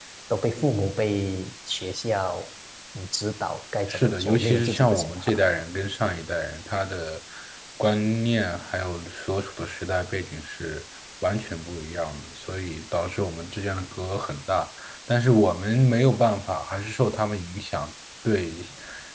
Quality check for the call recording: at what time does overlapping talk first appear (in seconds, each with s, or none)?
3.9 s